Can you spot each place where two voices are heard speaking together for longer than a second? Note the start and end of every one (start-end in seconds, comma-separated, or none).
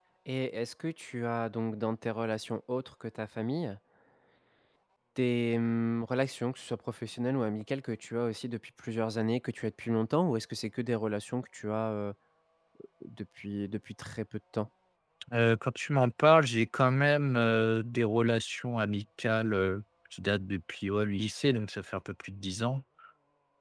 none